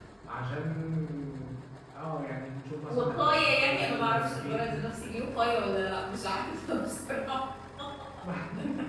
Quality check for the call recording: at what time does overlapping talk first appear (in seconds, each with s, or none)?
2.9 s